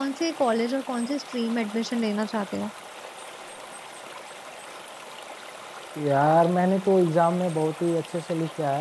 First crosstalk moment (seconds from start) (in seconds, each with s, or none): none